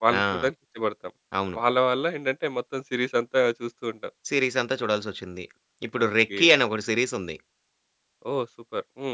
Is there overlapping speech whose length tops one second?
No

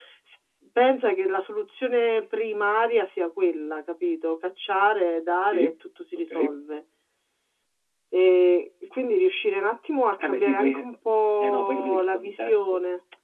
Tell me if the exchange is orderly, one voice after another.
No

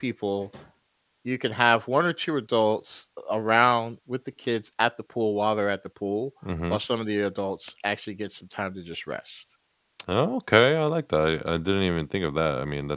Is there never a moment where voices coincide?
Yes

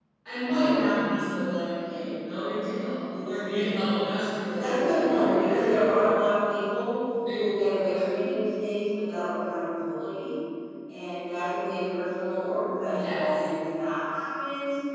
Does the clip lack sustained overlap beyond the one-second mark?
No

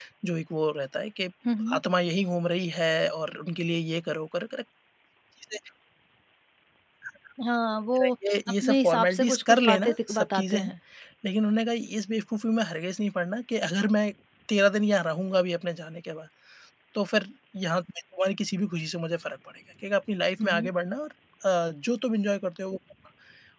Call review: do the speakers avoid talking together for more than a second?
No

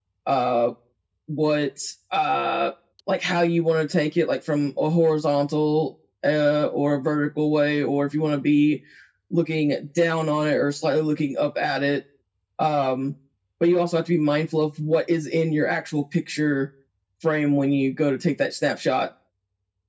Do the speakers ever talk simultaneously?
No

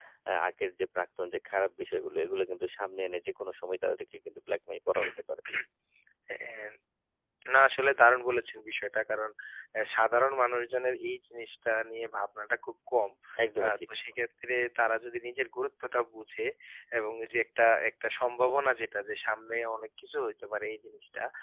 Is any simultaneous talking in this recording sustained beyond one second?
No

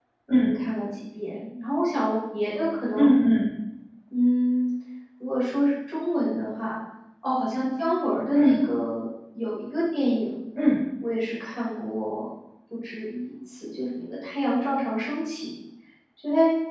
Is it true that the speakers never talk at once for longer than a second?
Yes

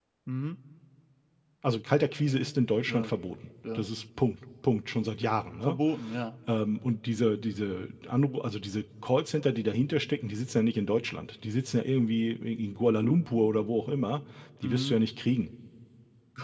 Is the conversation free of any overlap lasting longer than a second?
Yes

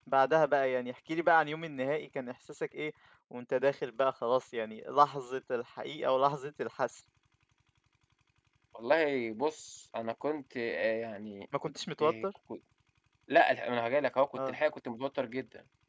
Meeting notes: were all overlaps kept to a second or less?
Yes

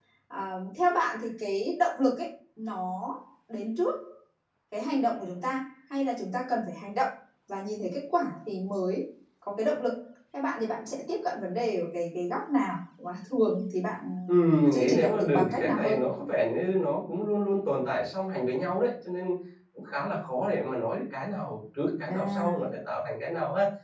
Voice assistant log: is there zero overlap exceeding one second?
No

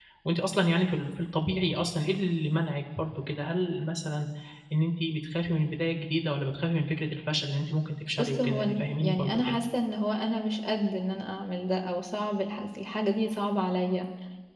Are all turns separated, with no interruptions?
No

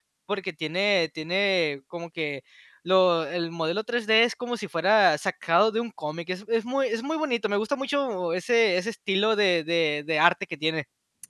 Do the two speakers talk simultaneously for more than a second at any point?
No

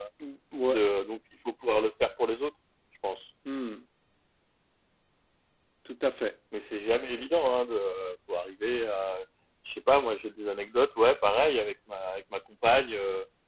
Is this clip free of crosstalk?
Yes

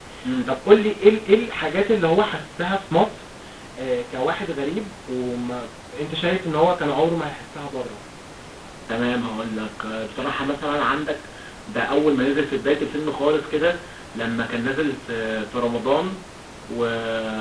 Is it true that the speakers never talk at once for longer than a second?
Yes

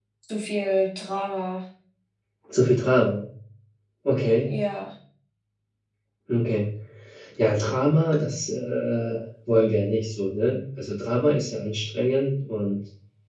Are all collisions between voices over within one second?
Yes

